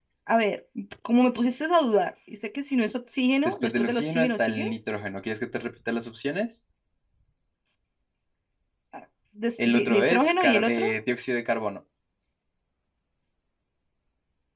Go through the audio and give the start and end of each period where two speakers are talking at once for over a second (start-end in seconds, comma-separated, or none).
3.5-4.7, 9.7-11.0